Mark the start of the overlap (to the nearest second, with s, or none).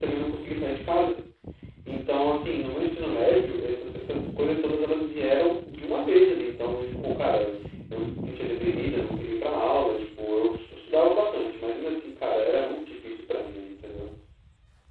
none